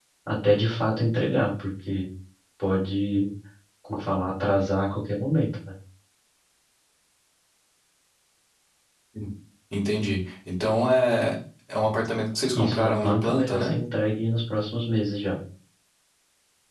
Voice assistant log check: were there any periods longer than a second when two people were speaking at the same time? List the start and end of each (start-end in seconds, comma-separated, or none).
12.5-13.8